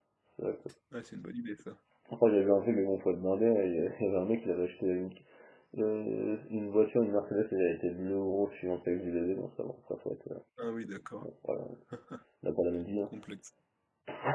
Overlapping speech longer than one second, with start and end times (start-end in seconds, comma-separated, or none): none